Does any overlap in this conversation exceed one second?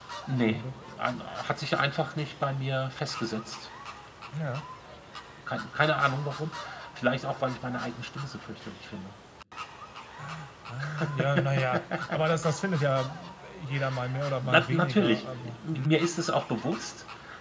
Yes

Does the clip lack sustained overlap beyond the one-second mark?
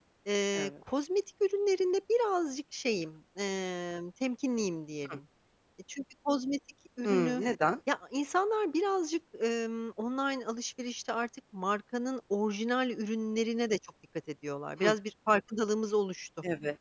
Yes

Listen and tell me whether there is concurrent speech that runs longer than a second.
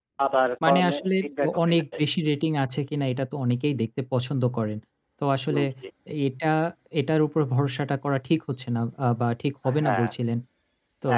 Yes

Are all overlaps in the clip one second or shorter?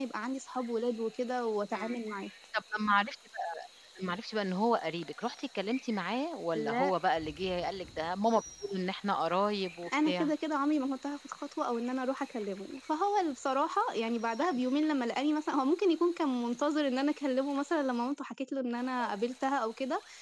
Yes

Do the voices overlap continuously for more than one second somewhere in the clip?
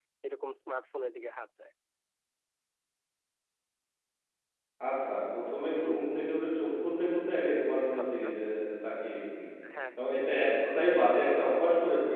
No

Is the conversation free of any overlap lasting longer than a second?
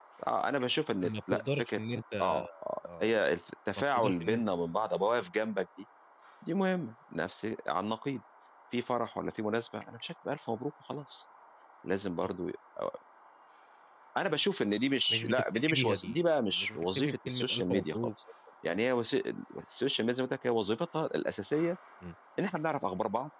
No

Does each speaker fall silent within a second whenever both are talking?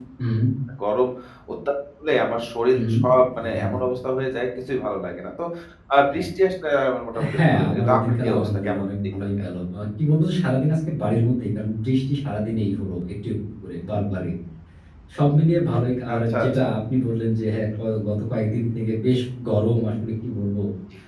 No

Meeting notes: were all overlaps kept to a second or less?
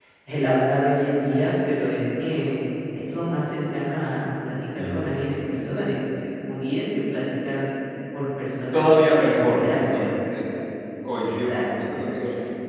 No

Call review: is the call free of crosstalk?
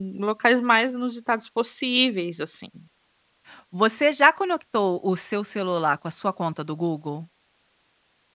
Yes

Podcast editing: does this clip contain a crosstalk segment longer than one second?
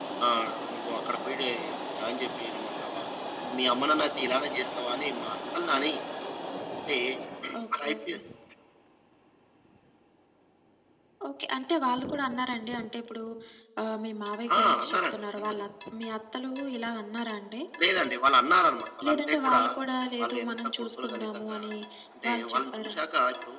Yes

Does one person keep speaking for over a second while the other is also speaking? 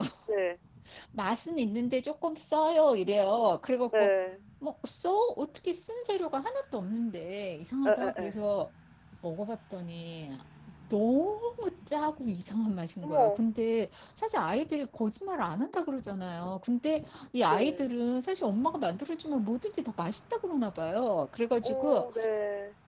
No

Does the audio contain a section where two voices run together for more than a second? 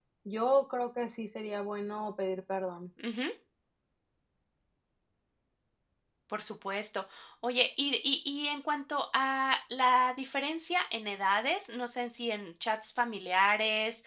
No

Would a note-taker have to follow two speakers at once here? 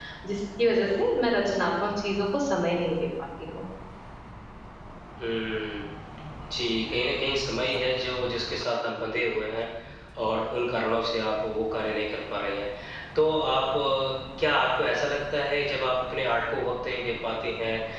No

